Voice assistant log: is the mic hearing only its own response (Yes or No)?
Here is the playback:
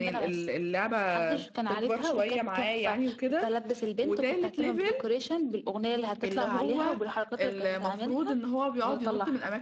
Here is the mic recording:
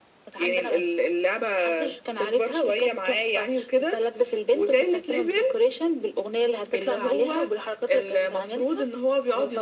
Yes